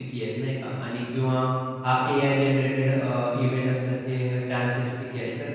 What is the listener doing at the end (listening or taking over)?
listening